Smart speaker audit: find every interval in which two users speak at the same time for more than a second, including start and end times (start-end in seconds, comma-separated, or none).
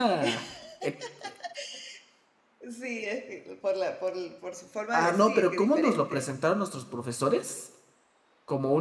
4.9-6.2